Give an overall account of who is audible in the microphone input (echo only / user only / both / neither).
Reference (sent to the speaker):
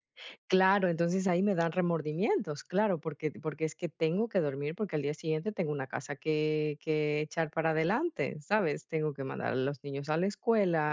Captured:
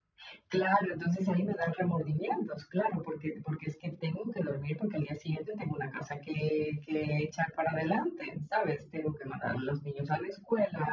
echo only